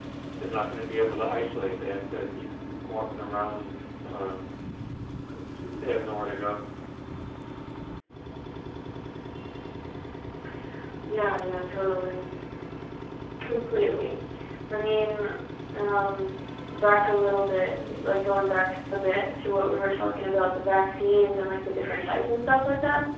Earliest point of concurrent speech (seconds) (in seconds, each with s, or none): none